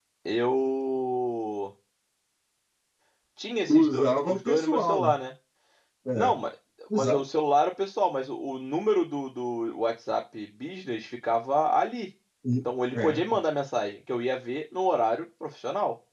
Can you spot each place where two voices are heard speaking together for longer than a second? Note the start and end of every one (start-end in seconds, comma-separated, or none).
3.7-5.1